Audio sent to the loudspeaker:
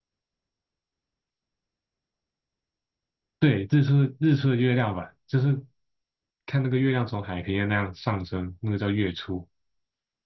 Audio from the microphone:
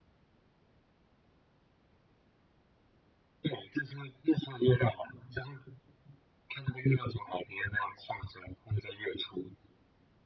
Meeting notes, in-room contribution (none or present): none